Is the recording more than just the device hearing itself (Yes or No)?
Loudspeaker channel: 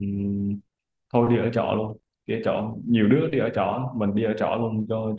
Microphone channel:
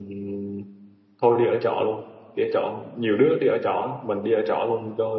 No